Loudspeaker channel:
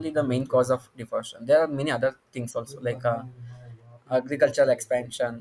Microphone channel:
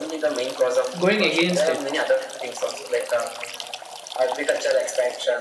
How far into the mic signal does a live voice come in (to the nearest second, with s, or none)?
1 s